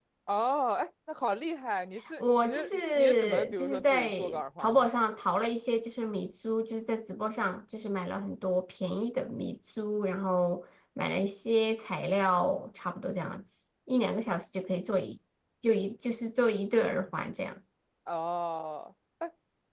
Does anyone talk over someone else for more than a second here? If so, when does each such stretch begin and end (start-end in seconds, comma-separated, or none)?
2.2-4.9